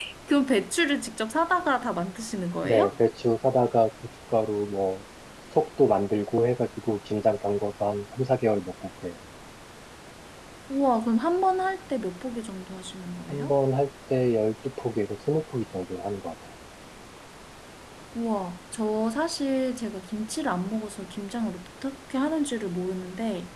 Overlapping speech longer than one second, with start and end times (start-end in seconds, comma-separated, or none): none